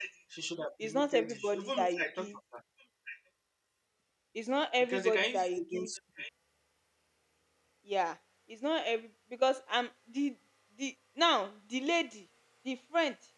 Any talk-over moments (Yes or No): Yes